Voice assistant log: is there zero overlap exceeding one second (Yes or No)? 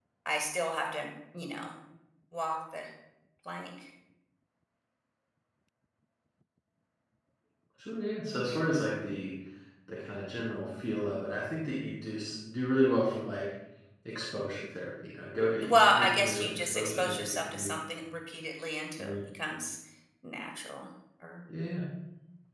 No